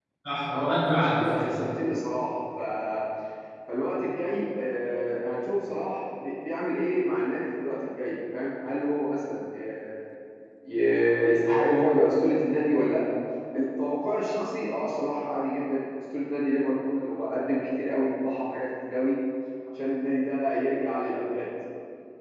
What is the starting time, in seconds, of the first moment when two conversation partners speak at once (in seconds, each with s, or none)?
0.5 s